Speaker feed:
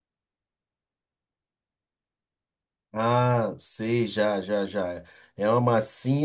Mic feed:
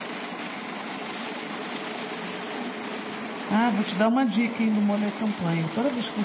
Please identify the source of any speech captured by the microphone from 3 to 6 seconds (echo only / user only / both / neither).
user only